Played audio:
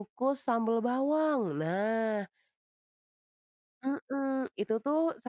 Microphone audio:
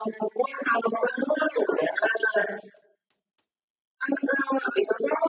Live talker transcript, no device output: none

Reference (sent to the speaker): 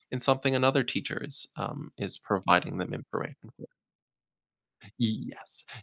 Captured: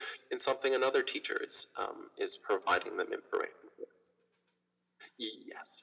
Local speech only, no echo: none

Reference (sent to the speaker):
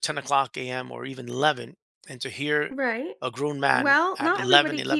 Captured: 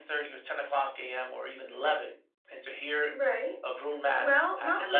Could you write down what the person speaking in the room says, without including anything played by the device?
none

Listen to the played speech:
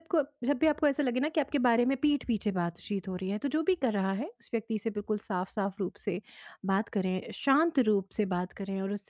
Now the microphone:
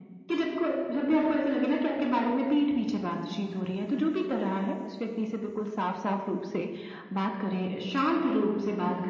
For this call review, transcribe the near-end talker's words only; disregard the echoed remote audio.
none

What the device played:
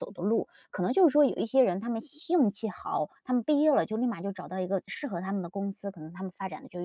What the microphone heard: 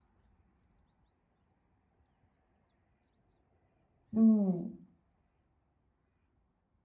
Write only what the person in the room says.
嗯。

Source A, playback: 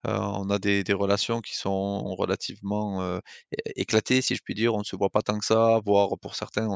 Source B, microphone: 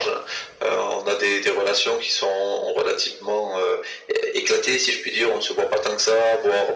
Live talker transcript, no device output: none

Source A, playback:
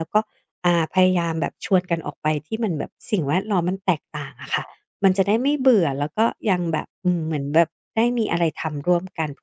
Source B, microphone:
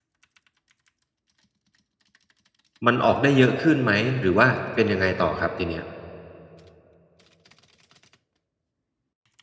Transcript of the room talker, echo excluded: มันออกได้เยอะขึ้นไหมหรือว่าเป็นยังไงต่อครับทีเนี้ย

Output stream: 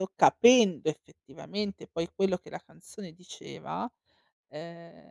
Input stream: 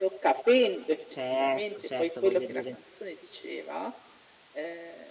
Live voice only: certo, certo, voglio dire,

